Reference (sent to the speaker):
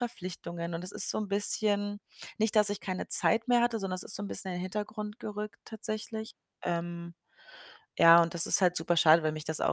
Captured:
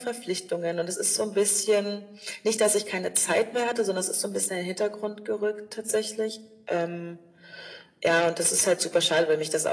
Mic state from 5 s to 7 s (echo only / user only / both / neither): echo only